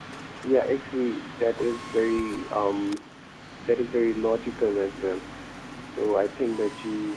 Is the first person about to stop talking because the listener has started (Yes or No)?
No